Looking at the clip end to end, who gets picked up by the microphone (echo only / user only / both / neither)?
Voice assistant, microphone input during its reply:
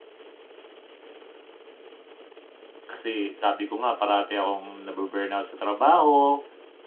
user only